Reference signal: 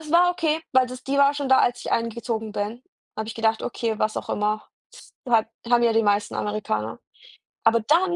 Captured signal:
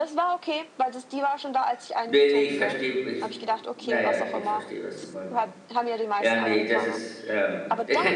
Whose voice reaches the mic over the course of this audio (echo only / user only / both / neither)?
both